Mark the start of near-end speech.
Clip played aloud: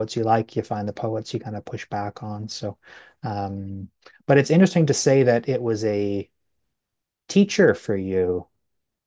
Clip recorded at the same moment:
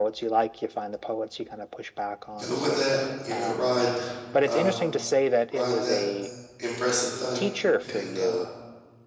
2.3 s

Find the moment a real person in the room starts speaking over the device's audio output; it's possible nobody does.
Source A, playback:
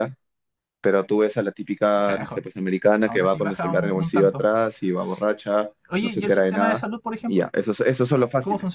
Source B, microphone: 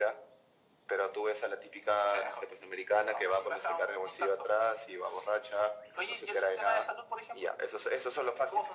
none

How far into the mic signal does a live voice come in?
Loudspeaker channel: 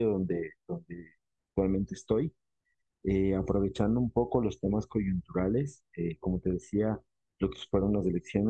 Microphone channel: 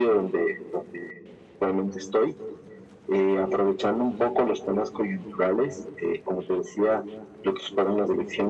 none

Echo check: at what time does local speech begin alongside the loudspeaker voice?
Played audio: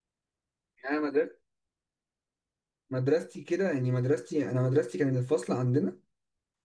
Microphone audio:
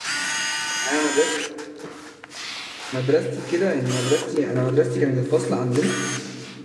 none

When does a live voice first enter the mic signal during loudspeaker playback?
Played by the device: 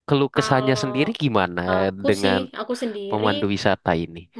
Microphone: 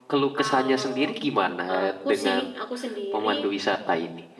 none

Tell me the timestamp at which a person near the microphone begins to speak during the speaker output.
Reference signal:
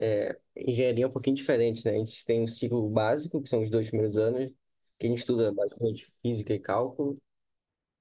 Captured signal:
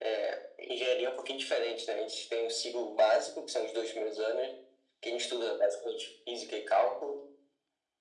none

